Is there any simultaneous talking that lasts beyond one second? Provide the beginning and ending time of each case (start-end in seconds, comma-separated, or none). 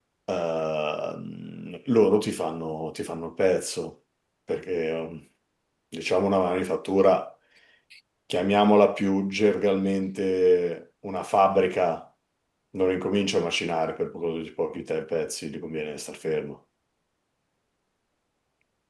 none